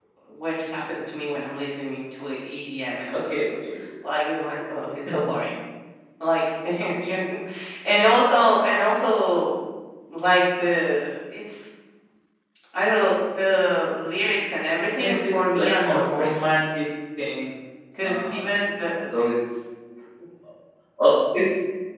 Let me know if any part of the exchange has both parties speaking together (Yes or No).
Yes